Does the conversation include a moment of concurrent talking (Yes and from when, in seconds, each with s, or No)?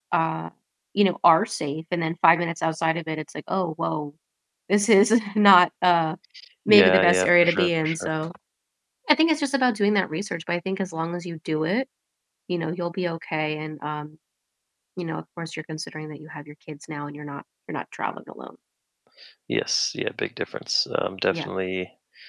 Yes, from 6.7 s